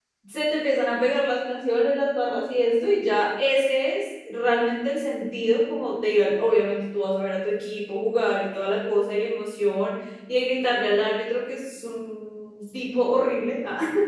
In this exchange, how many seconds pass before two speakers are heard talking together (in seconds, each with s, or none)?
none